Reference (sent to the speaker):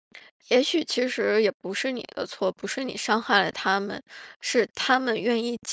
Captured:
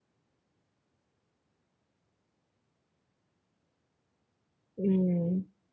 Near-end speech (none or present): present